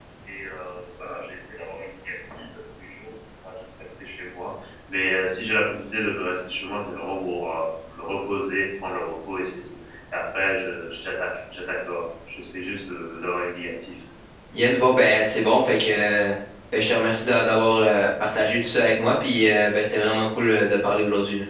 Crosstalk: none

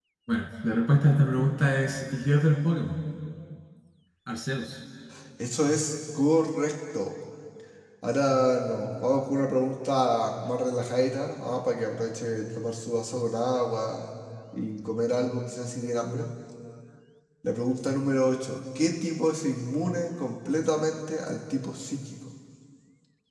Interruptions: none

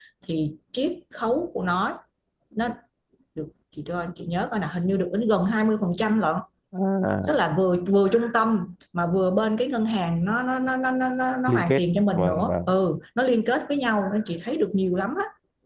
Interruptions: present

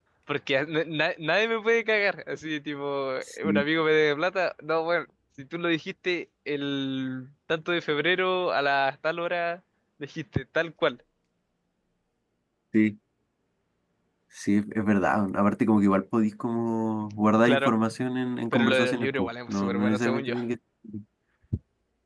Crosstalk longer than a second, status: present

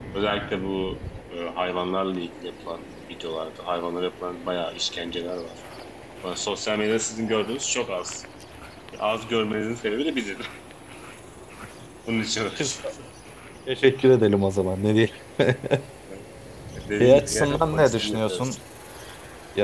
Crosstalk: present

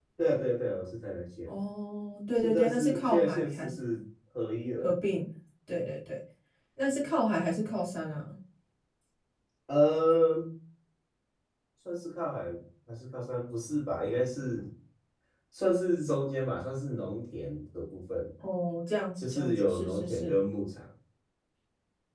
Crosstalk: present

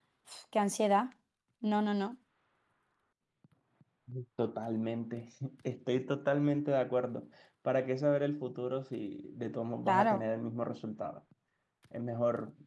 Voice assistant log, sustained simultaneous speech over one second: none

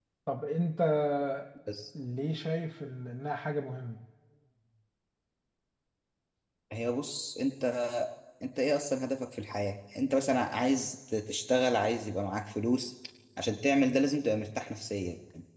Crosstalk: none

